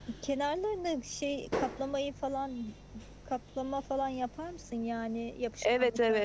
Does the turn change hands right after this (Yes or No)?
Yes